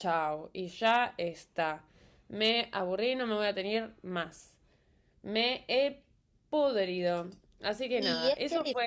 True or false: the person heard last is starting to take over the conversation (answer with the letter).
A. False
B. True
B